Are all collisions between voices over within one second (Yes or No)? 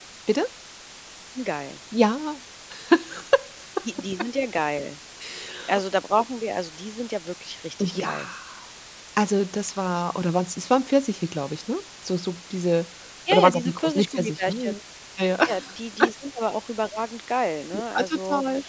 No